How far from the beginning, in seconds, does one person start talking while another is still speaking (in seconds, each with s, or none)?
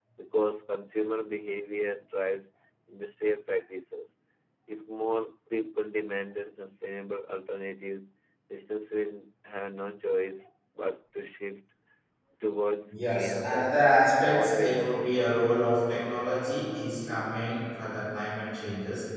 12.9 s